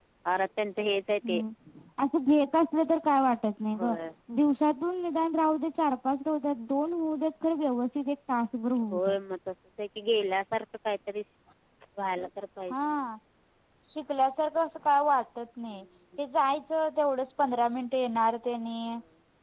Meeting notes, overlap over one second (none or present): none